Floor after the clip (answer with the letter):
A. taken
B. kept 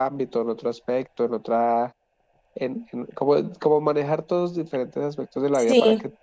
B